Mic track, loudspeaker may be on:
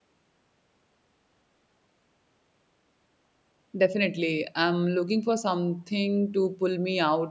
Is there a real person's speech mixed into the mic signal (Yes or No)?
Yes